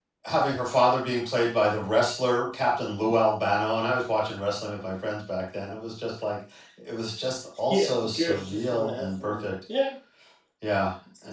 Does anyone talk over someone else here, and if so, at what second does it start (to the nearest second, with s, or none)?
8 s